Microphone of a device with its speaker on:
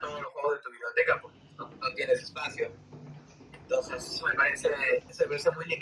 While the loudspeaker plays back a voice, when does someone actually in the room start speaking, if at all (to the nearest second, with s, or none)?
none